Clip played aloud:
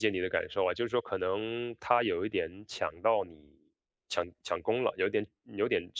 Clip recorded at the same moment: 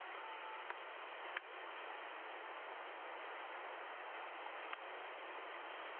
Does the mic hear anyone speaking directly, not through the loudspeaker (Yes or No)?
No